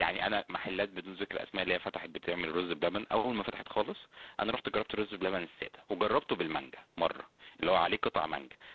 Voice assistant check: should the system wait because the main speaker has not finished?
Yes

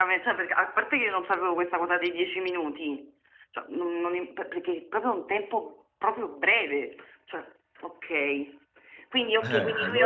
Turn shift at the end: No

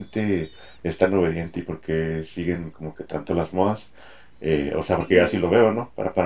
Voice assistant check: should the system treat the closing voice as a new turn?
No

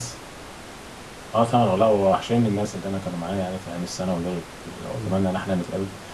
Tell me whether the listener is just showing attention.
Yes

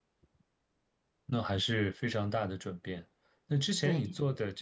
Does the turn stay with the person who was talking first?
Yes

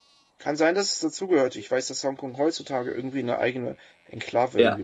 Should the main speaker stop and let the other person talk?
Yes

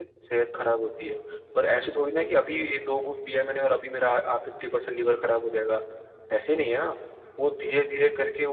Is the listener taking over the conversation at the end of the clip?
No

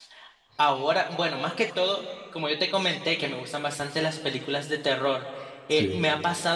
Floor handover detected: No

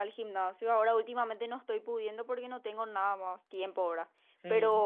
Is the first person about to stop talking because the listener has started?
No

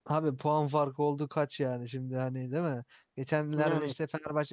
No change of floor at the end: Yes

